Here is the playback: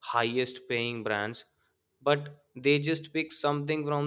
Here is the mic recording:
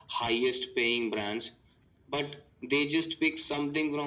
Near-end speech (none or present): none